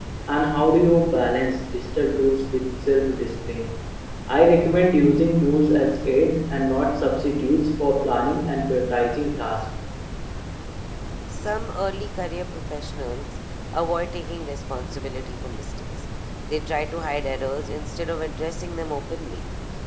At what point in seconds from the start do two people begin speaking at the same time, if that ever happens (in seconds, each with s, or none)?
none